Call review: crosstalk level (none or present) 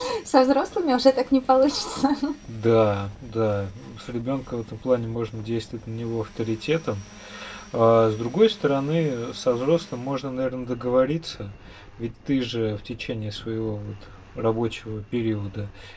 none